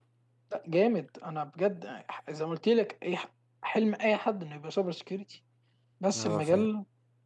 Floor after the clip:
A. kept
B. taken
A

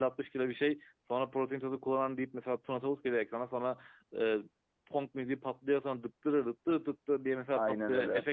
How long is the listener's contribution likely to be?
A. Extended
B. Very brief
B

